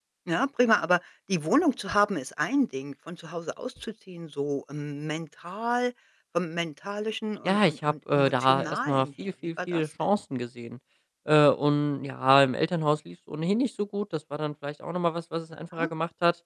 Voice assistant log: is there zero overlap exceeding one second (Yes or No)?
No